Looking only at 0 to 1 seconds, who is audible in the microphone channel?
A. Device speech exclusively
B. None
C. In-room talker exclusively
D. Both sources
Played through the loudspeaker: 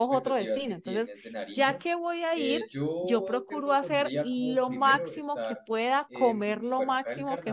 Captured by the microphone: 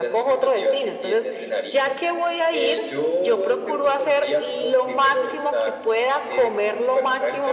A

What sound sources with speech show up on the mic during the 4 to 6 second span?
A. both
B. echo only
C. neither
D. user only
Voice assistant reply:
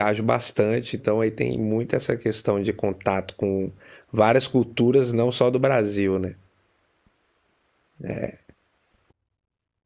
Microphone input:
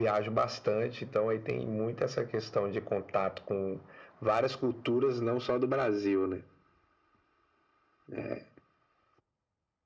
B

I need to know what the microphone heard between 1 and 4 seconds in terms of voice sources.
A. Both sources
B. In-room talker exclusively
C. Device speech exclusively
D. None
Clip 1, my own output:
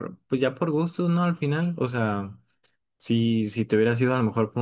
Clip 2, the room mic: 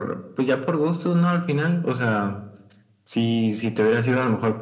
C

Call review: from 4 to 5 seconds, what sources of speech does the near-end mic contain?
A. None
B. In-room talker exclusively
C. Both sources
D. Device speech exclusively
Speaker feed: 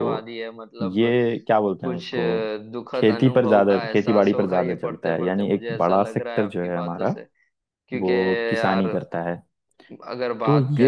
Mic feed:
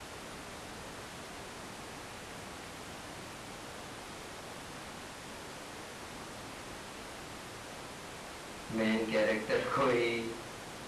A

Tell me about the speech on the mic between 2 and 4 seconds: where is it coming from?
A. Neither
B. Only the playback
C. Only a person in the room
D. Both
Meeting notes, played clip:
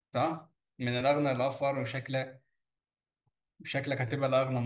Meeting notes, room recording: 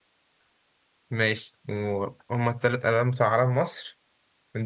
C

